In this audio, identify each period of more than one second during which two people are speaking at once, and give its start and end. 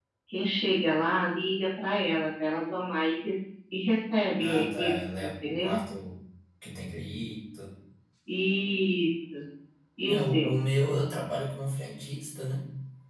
4.4-5.8

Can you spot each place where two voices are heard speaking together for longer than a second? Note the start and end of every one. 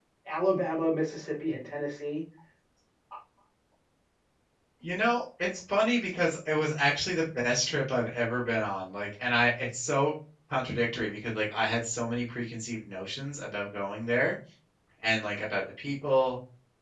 none

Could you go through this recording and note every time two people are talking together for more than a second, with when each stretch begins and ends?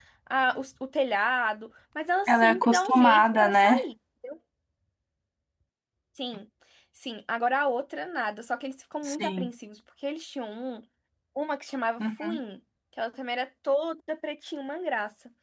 2.3-3.8

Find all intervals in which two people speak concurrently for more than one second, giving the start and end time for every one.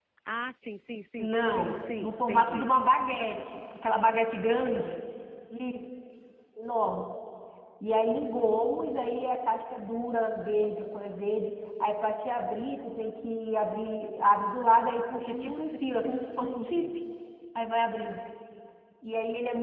1.2-2.7, 15.3-16.9

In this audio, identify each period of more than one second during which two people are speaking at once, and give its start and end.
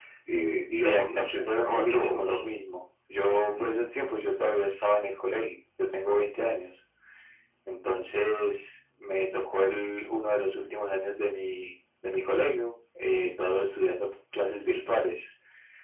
0.7-2.4

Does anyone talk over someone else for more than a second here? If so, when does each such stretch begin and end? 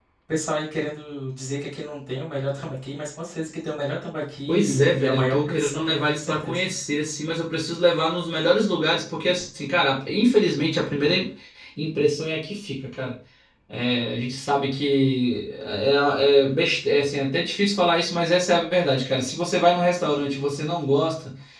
4.5-6.6

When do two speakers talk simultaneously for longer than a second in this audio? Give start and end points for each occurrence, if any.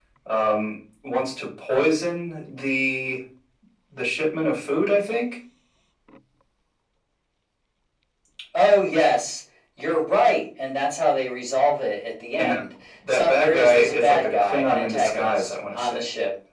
13.1-16.0

